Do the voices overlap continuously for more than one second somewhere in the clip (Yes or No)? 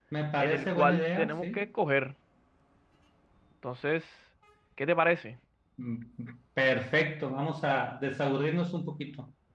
Yes